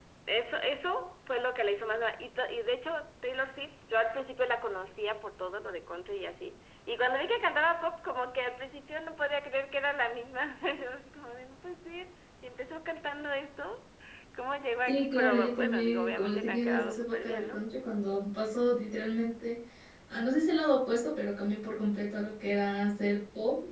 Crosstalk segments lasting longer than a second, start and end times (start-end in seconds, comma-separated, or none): 14.9-17.6